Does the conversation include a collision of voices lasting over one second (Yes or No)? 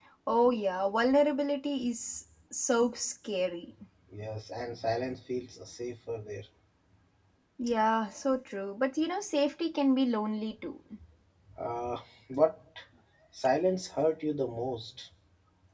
No